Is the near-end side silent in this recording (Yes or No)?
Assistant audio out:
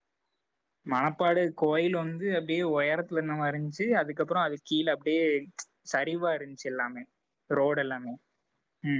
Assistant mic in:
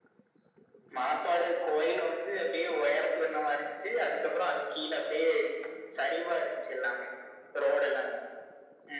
Yes